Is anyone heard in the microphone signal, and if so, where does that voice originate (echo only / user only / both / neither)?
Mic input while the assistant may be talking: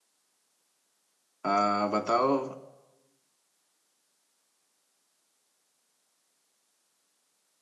user only